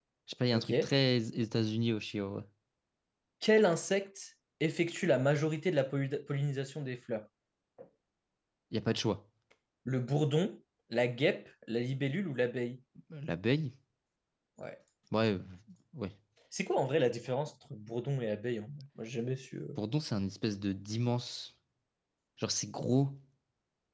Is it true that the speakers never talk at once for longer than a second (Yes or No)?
Yes